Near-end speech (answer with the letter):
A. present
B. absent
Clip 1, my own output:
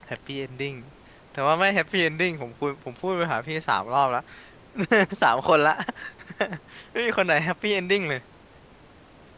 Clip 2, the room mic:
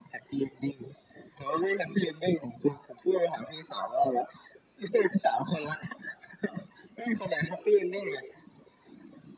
B